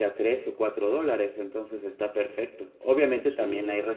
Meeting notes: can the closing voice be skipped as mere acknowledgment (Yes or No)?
Yes